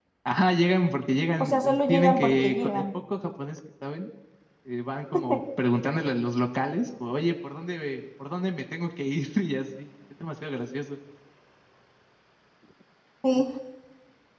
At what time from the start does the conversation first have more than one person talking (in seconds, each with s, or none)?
1.4 s